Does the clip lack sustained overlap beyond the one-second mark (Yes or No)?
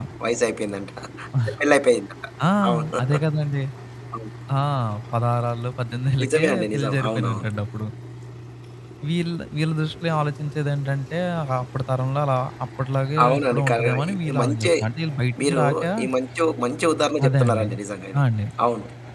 No